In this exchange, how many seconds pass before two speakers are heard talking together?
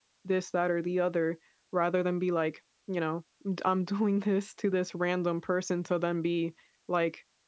none

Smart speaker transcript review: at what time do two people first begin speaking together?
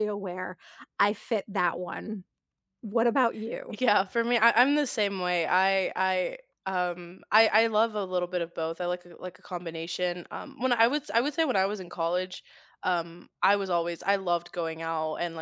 none

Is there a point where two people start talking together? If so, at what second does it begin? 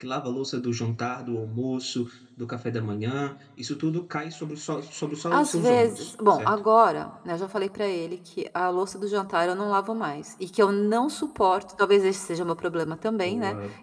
5.3 s

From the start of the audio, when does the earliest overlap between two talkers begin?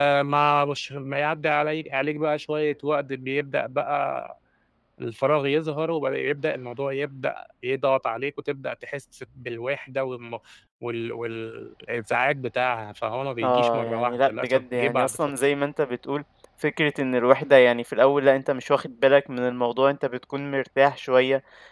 13.4 s

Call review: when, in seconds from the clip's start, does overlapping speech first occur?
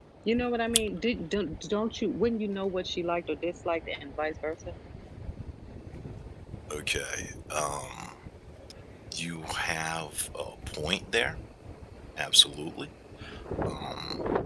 none

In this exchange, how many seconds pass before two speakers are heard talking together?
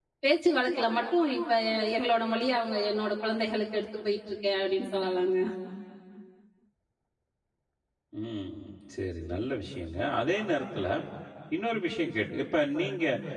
none

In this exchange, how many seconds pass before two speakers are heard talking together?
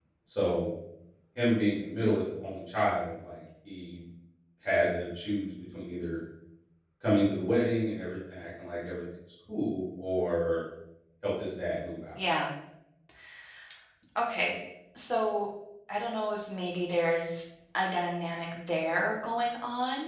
none

